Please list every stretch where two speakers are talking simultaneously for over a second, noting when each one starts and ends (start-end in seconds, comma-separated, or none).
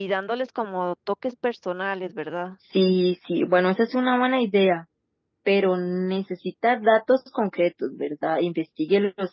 none